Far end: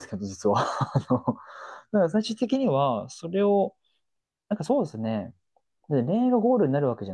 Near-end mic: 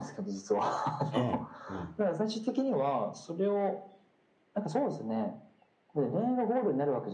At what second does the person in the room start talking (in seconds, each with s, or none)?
1.1 s